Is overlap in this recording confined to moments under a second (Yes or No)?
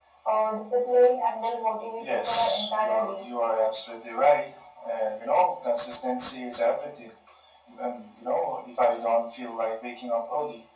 No